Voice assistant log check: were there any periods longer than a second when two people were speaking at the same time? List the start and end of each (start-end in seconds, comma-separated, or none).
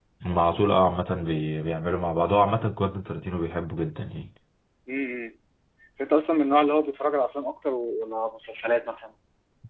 none